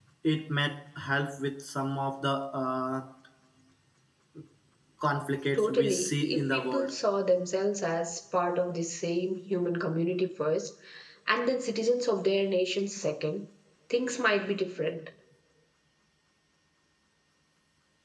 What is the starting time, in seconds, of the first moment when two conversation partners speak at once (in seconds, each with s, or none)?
5.5 s